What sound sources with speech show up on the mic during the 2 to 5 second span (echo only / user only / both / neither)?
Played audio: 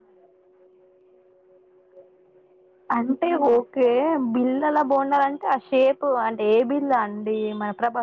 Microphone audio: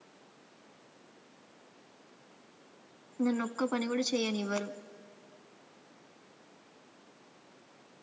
user only